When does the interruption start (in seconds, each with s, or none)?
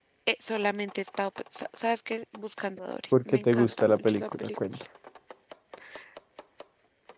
3.1 s